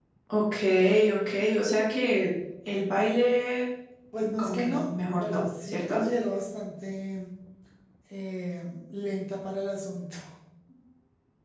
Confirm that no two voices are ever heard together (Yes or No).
No